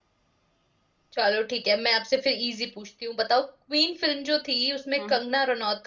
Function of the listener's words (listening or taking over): listening